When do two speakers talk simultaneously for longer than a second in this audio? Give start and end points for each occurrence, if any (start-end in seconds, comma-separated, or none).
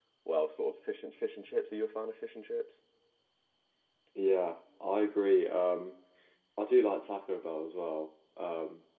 none